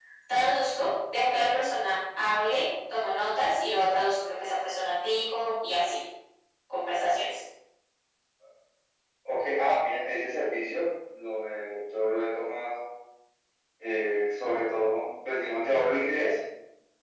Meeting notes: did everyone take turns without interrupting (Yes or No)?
Yes